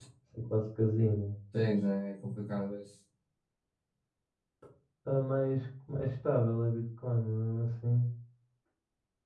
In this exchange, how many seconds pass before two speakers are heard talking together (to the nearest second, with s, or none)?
none